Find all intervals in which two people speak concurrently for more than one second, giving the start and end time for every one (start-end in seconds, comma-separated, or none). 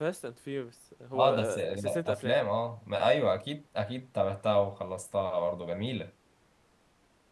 1.1-2.4